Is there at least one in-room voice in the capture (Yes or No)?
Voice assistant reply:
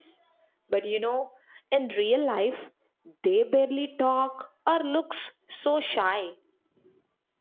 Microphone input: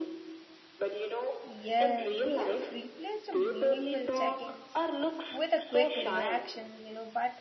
Yes